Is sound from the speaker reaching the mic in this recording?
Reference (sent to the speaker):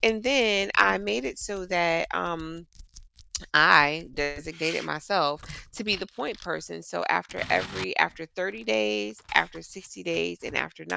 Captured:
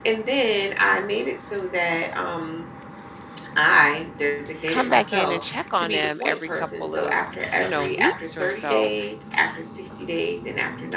Yes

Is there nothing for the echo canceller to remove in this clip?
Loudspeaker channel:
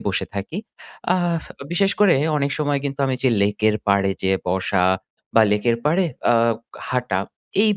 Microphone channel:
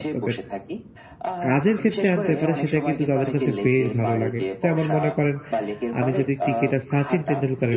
No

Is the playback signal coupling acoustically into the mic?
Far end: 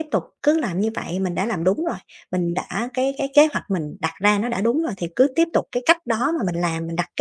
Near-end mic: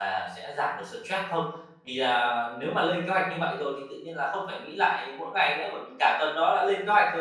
No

